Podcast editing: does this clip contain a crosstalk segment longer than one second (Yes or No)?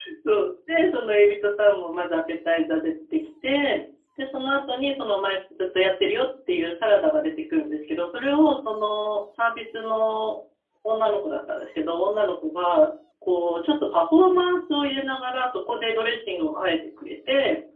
No